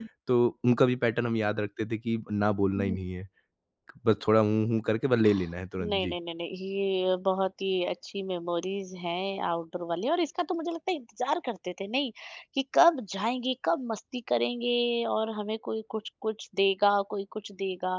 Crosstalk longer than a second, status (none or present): none